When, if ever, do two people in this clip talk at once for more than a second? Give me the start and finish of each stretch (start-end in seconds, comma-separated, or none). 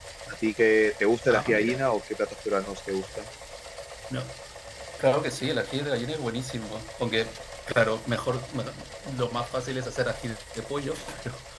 none